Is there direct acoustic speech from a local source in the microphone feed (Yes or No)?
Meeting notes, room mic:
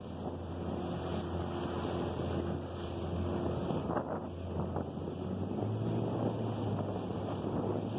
No